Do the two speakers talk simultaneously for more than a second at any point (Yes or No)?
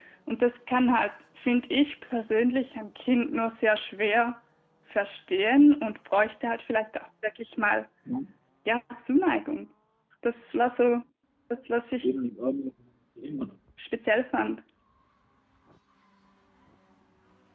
No